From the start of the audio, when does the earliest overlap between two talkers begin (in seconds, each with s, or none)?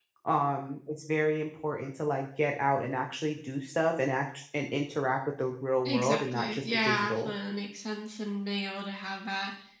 5.8 s